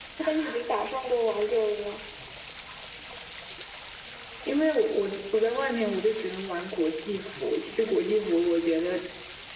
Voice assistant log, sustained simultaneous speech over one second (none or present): none